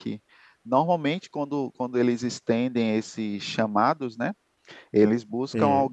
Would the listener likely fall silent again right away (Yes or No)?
Yes